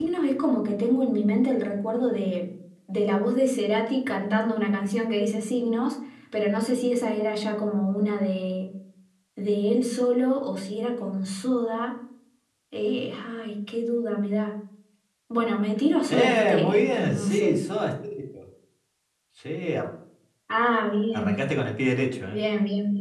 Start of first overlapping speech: 16.1 s

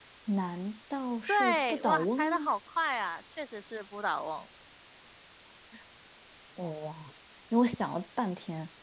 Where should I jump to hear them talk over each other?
1.3 s

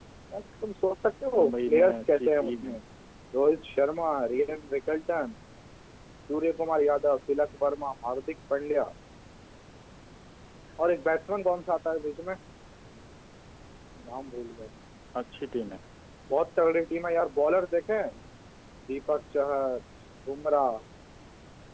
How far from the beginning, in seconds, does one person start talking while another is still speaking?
1.3 s

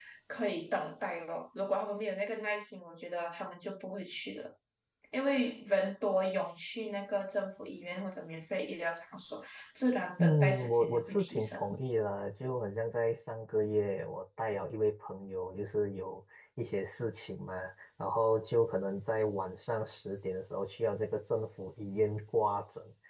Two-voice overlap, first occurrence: 10.2 s

